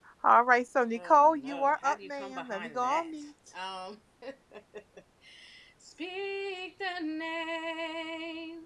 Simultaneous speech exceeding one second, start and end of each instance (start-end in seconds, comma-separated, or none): 1.0-3.1